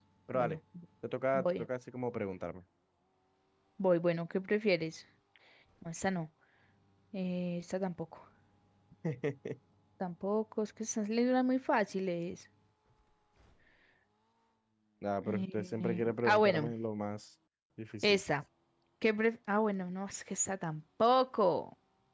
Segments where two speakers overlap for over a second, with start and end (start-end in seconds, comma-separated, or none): 15.2-16.7